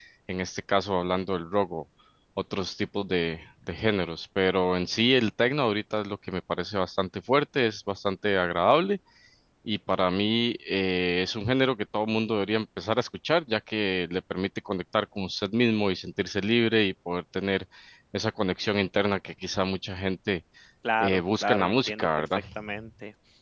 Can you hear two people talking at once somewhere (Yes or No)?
Yes